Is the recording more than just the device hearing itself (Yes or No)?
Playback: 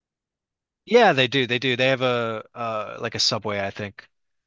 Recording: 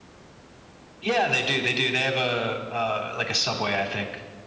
No